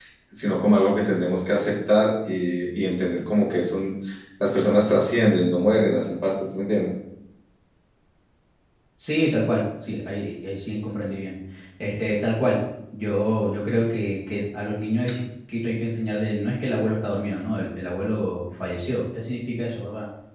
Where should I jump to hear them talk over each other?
none

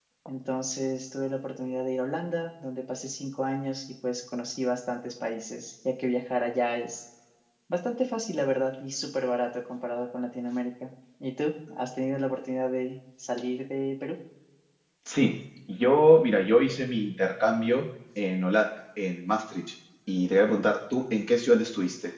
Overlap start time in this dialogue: none

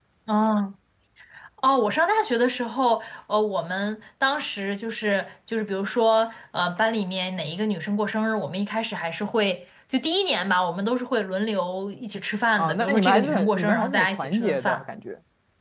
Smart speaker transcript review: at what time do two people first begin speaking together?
12.6 s

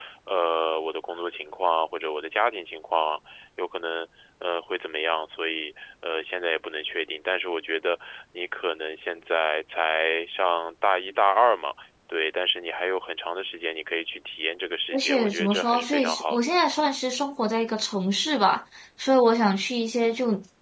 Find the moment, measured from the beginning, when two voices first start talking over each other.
14.9 s

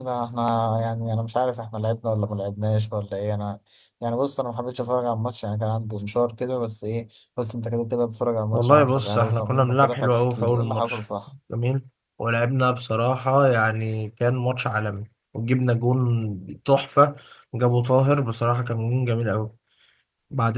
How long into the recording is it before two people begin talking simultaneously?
8.5 s

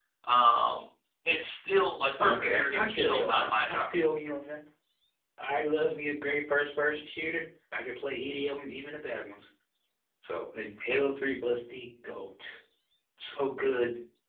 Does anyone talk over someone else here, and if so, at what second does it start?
2.2 s

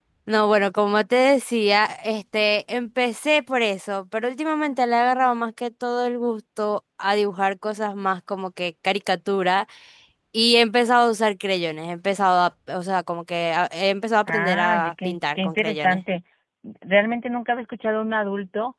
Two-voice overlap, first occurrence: 14.3 s

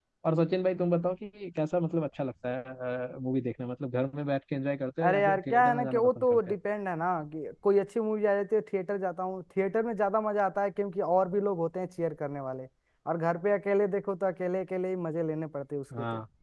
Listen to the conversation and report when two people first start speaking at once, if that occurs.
5.1 s

